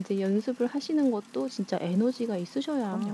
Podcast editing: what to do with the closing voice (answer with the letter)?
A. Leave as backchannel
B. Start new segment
B